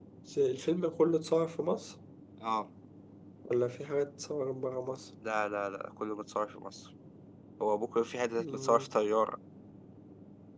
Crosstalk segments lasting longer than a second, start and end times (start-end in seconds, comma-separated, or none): none